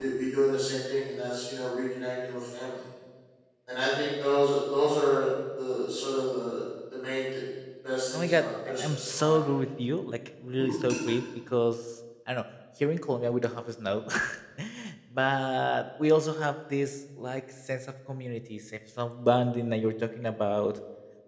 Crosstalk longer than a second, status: present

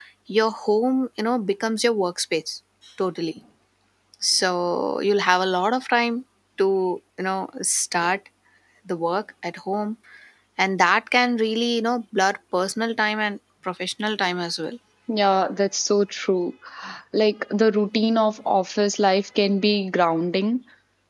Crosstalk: none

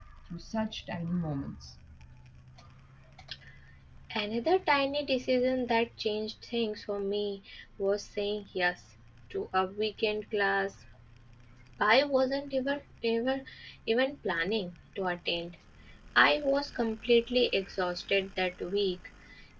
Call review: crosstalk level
none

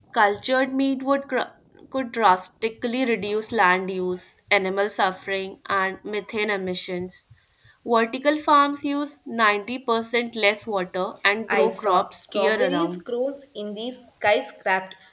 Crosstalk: present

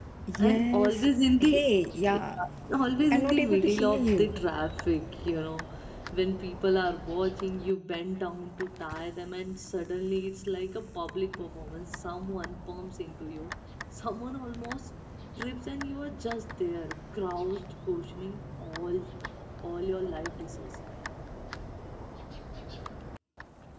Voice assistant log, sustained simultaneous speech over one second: present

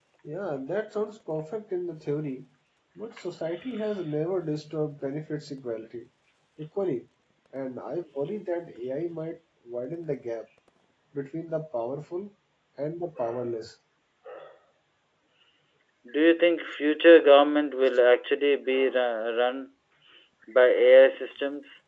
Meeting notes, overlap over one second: none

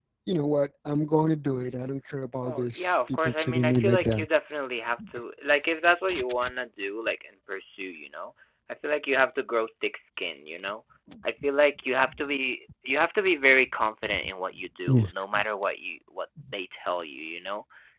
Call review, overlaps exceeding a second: present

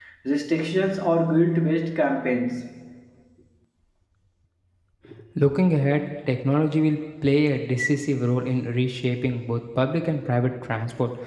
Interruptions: none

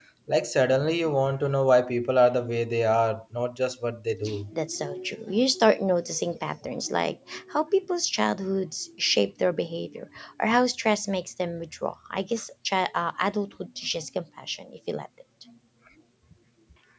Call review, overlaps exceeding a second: none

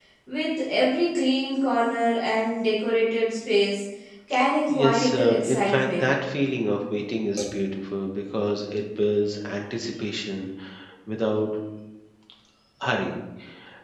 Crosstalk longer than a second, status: present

